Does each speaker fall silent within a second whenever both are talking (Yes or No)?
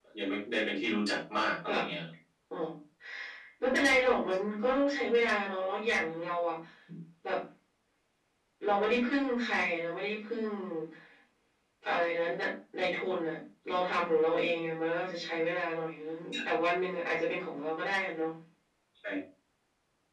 Yes